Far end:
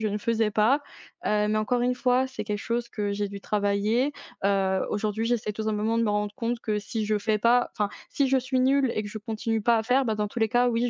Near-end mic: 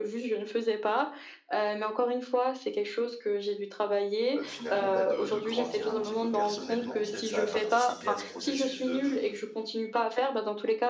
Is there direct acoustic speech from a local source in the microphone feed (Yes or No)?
Yes